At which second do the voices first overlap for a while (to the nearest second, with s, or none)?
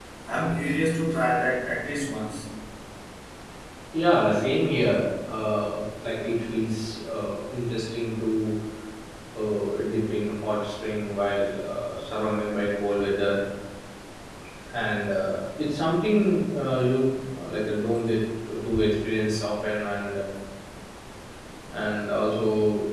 none